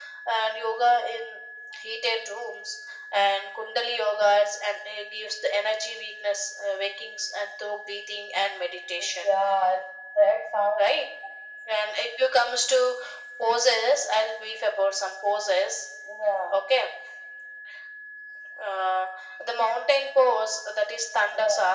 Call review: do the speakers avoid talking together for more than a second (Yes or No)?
Yes